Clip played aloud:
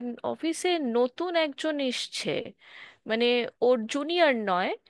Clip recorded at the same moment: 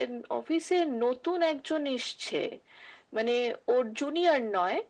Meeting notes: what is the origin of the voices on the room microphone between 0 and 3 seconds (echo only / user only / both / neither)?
echo only